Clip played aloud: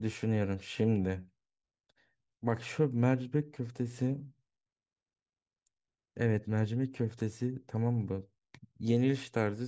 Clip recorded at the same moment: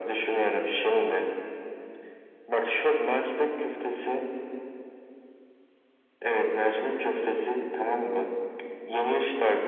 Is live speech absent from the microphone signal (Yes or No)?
Yes